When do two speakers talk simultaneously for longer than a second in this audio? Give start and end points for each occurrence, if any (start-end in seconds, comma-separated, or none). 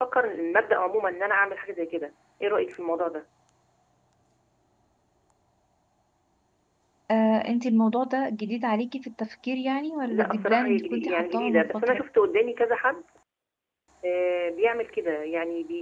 10.1-12.0